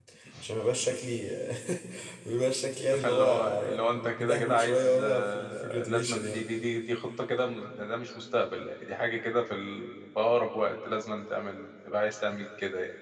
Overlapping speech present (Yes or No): Yes